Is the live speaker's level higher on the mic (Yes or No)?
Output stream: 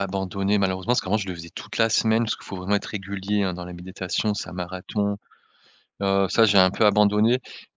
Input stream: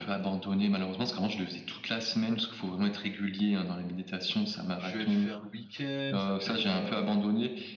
No